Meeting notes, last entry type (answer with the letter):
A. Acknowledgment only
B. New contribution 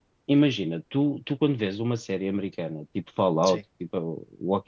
A